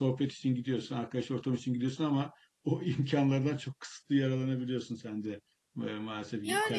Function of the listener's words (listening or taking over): taking over